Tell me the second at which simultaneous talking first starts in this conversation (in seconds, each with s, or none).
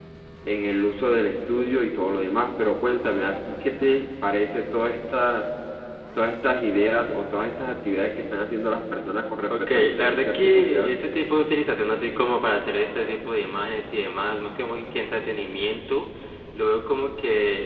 9.5 s